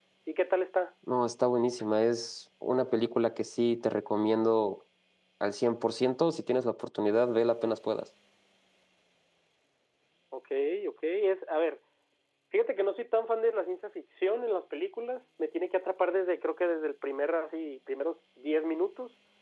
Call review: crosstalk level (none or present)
none